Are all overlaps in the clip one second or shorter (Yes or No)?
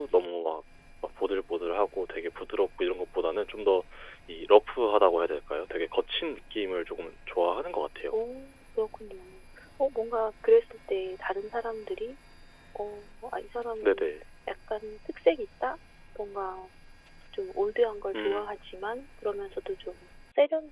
Yes